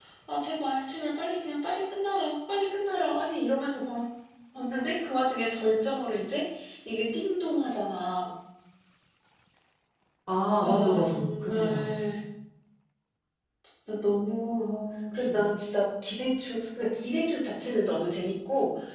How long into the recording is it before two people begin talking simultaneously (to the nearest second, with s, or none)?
11 s